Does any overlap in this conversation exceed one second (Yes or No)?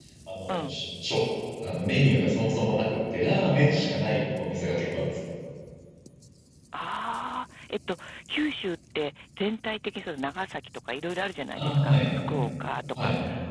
No